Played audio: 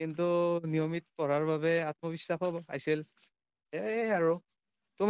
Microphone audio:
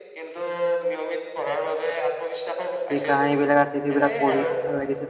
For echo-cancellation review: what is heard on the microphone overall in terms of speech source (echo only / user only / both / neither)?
both